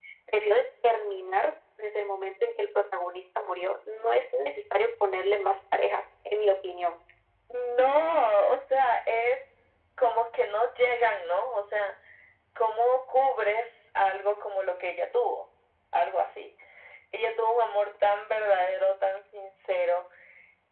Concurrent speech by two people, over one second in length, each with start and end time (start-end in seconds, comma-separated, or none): none